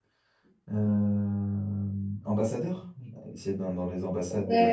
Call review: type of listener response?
taking over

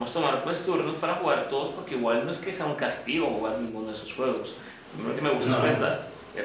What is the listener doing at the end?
listening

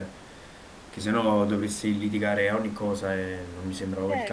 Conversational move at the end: taking over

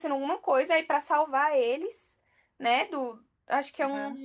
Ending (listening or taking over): listening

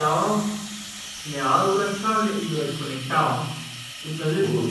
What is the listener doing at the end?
listening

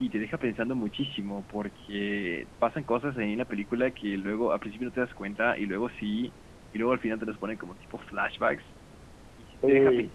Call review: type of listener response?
listening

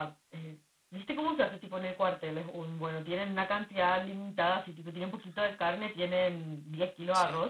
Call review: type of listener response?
listening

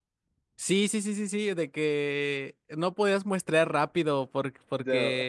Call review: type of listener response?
listening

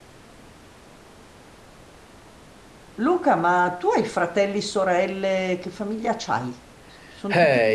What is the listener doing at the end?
taking over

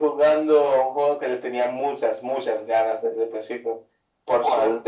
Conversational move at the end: listening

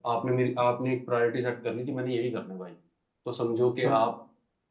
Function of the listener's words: listening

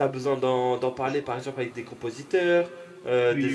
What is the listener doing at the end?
listening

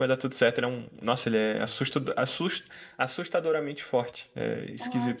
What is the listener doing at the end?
taking over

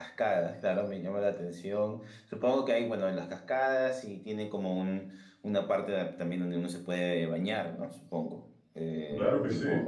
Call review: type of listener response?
taking over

